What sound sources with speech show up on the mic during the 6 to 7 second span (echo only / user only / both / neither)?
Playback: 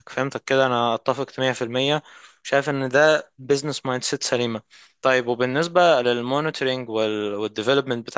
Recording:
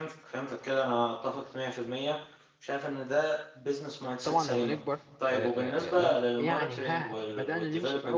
both